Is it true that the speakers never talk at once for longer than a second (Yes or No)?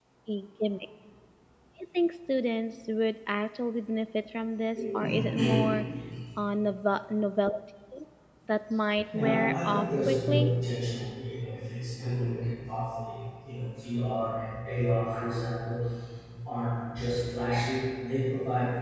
No